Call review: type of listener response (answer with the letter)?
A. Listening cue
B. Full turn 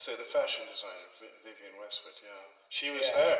B